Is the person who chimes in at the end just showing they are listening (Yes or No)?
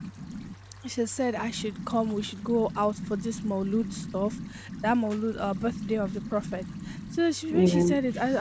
Yes